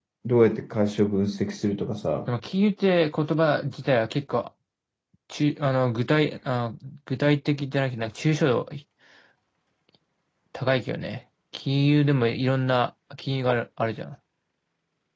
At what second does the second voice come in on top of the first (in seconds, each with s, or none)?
none